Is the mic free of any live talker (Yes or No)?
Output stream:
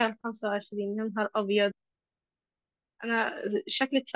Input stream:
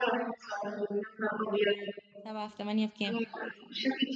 No